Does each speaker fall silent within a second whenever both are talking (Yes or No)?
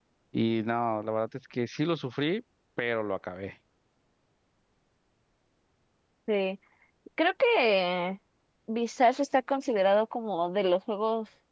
Yes